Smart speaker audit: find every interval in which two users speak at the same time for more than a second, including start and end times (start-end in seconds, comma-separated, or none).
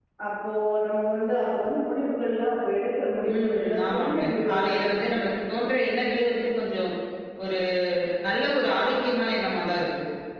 3.4-4.8